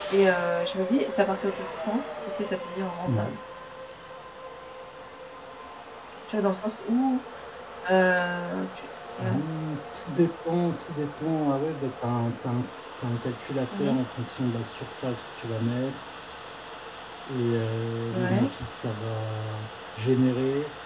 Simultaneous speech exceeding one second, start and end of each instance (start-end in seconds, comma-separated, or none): none